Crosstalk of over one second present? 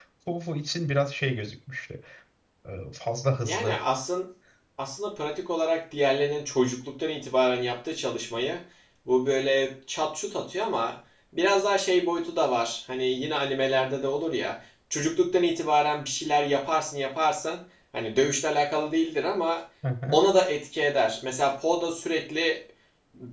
No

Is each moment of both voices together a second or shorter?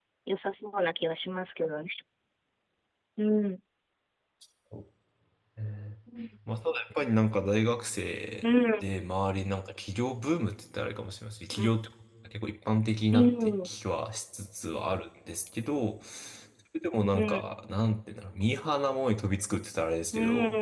Yes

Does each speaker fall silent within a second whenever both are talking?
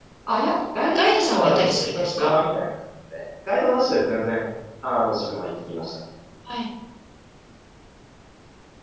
No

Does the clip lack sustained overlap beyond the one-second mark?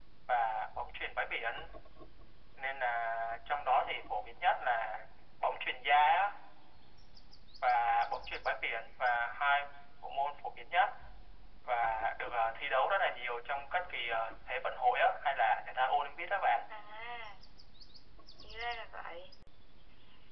Yes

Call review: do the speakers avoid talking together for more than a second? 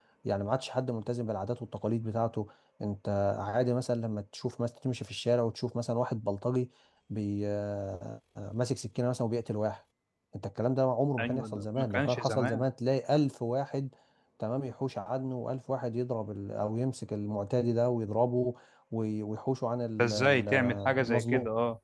No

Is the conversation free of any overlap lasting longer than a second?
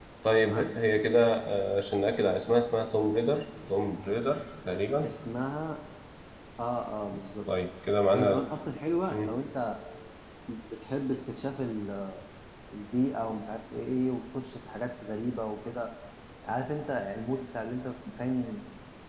Yes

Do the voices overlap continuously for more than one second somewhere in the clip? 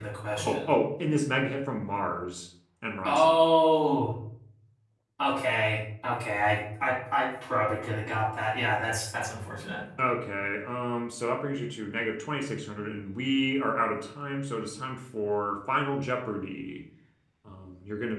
No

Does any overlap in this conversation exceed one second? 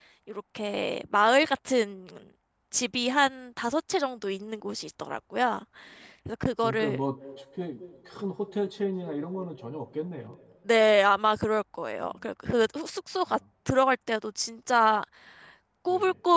No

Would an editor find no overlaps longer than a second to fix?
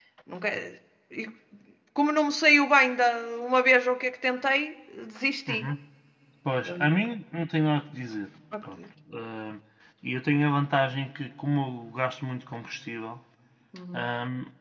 Yes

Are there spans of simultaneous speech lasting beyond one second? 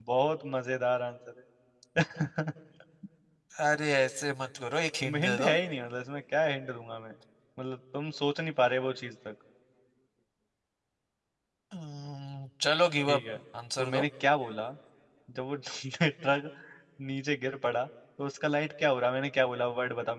No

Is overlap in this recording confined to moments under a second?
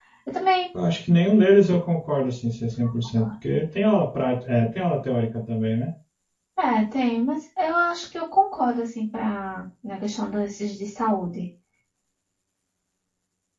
Yes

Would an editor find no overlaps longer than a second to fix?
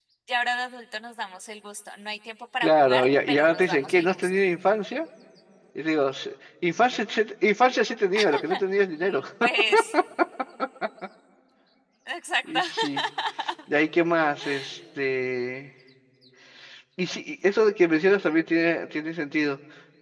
No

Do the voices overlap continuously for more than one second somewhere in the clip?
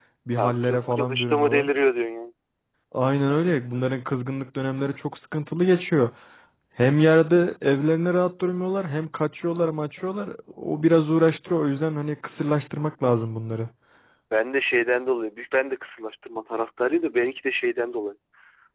Yes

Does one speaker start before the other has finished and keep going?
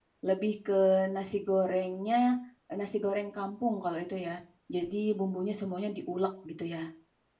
No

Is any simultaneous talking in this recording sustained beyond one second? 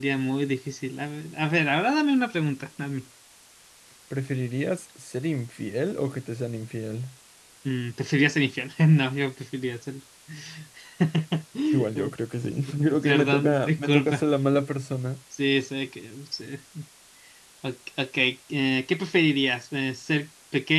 Yes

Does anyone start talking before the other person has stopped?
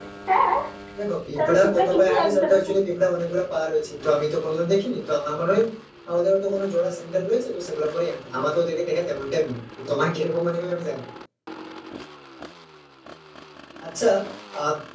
Yes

